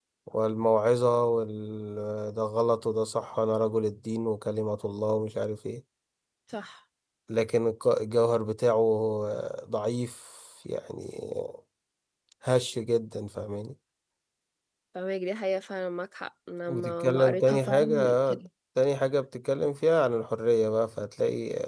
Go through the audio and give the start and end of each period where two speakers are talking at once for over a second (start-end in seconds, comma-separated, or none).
16.7-18.4